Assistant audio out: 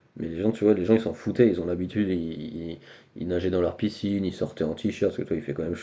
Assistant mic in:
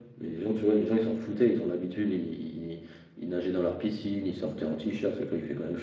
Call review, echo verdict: present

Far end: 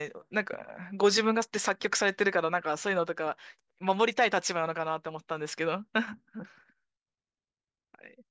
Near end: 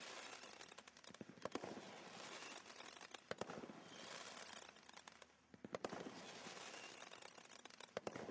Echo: none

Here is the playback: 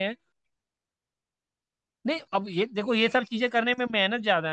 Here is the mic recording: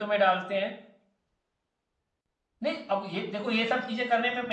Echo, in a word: present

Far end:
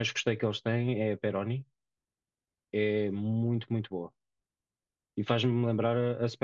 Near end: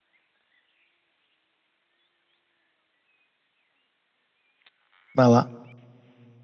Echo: none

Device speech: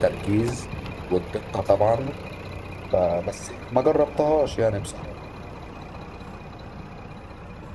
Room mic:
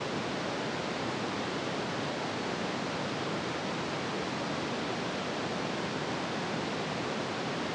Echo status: none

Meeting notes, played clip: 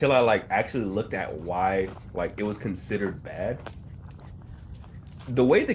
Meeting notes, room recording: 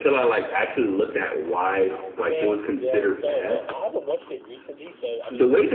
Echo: present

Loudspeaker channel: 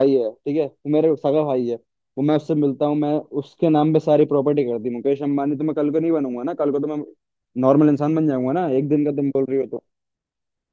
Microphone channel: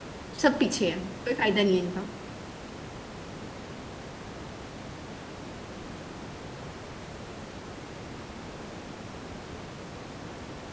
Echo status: none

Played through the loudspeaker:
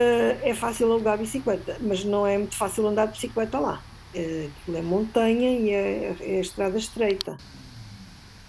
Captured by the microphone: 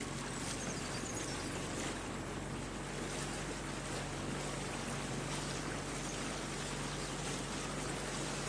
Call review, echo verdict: none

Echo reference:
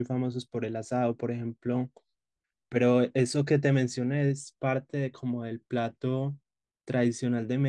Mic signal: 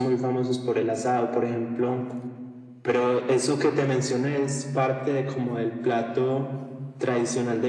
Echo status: present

